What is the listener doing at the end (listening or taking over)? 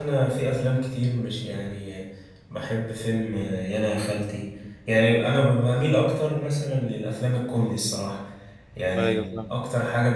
listening